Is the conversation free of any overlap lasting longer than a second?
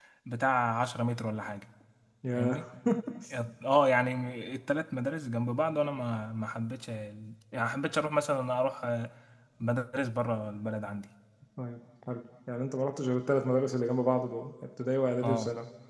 Yes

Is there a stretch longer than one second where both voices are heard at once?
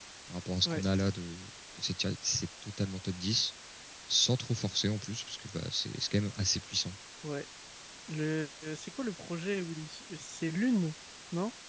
No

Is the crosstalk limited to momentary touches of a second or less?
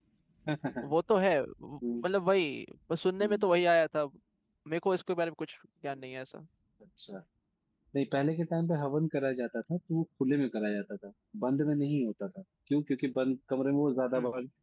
Yes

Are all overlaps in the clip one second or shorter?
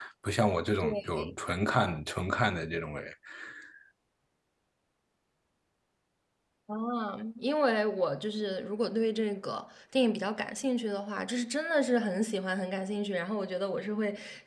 Yes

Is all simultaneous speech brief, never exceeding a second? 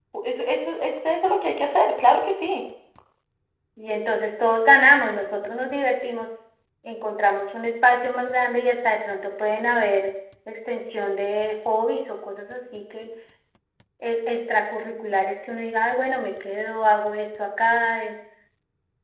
Yes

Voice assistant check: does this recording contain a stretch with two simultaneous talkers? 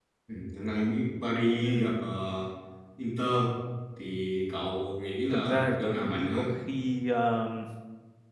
Yes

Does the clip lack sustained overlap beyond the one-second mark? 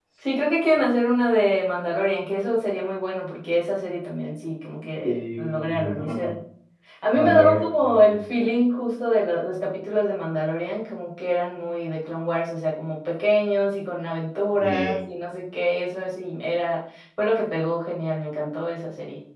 No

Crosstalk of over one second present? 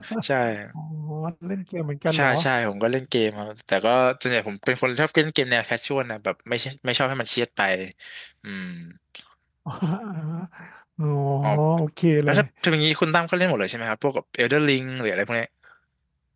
No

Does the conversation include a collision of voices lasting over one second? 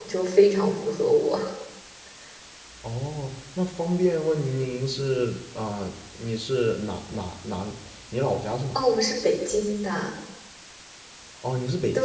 No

